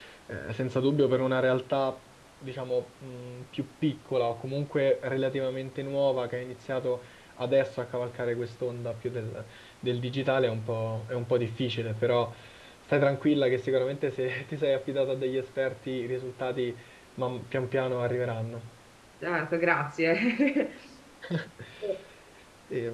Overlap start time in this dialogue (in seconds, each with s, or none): none